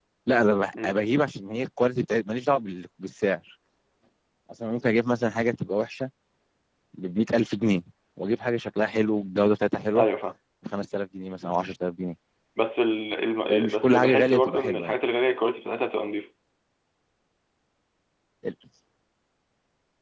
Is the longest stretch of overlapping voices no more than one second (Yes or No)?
No